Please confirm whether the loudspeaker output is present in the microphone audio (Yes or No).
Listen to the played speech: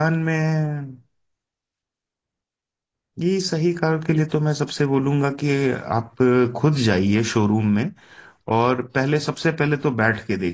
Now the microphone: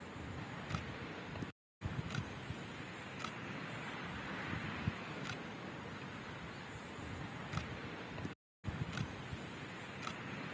No